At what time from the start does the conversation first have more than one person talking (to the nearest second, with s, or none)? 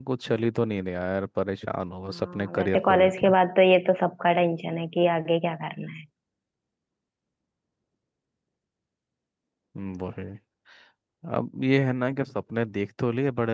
2 s